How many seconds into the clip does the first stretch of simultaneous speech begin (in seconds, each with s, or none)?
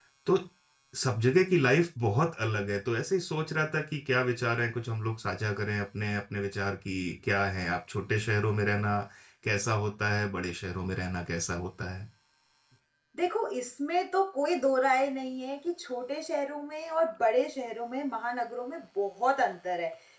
none